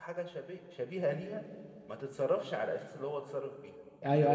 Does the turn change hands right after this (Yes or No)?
Yes